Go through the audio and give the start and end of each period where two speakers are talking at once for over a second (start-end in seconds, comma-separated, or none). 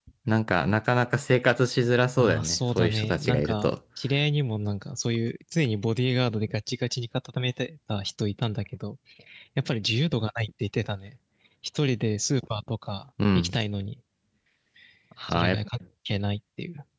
2.2-3.7